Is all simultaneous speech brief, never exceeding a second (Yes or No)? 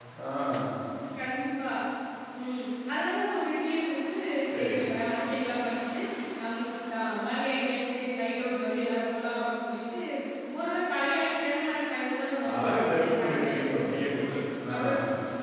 No